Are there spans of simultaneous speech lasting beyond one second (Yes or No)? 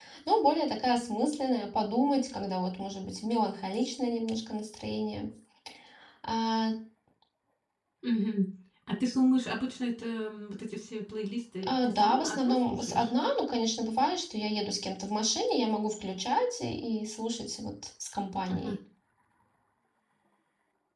Yes